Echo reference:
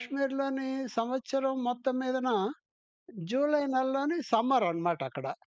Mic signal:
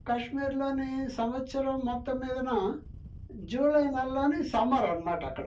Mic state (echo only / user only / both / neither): echo only